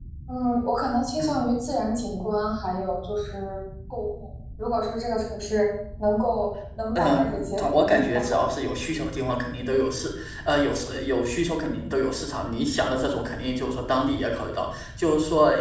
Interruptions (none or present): present